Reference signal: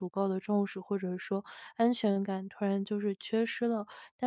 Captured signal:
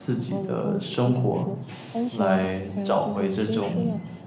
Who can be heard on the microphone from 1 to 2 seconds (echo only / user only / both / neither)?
both